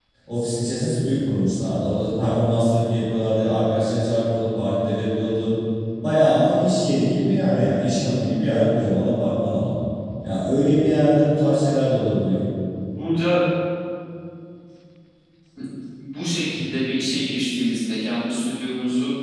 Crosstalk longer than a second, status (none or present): none